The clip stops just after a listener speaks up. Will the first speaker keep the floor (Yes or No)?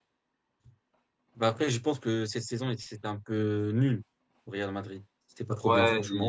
No